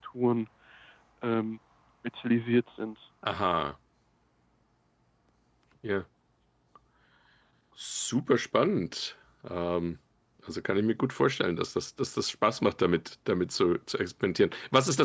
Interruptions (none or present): none